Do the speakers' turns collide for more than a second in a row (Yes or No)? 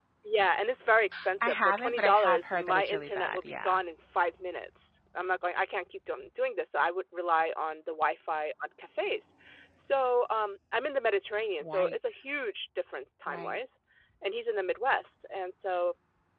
Yes